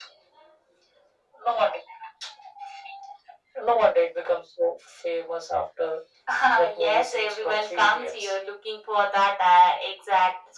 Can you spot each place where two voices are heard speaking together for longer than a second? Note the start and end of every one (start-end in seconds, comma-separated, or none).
6.8-8.3